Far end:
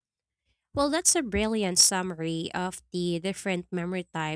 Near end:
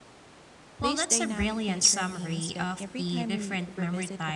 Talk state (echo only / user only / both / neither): both